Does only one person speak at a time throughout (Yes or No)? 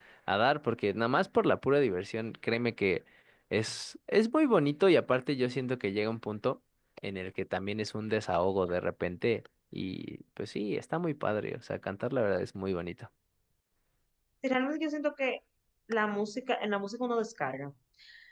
Yes